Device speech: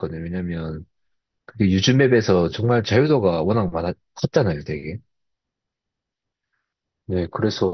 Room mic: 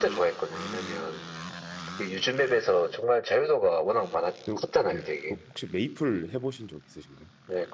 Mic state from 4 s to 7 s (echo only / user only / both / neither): both